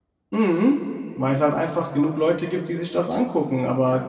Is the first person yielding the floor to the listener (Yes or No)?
No